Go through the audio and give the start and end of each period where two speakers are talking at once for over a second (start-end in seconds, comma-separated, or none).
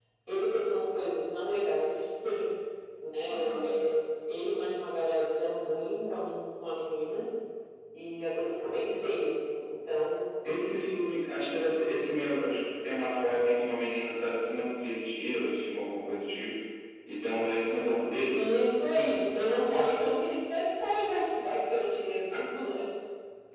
none